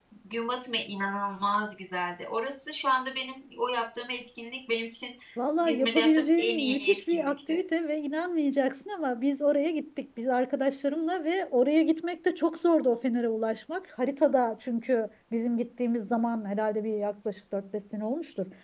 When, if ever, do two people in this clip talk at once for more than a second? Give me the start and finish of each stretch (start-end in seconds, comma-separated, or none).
5.6-7.6